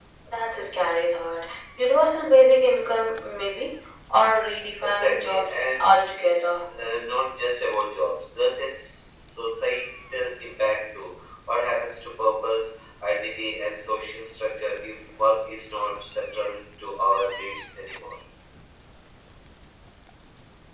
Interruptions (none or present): present